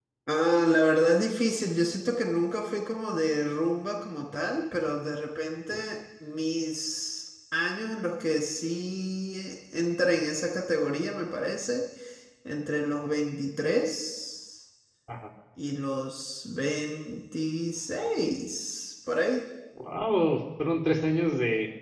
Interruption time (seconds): none

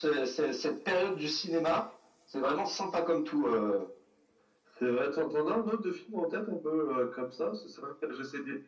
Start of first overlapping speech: none

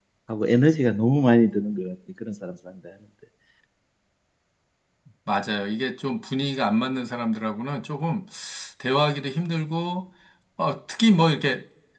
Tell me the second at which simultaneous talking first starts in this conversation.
none

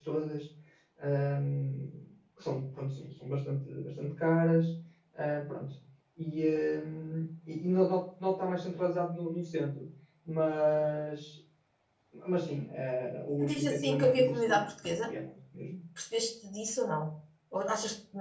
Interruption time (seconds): 13.4 s

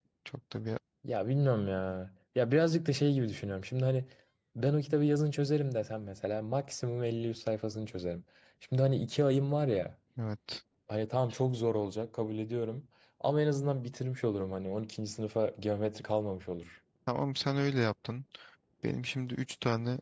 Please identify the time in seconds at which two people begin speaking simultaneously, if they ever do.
none

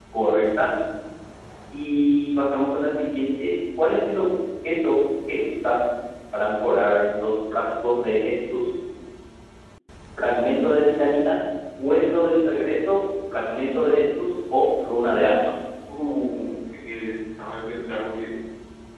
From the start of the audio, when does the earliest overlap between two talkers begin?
none

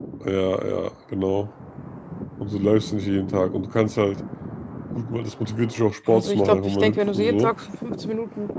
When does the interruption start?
6.1 s

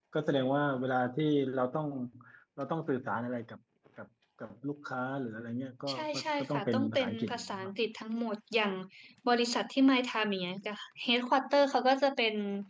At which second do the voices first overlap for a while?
5.9 s

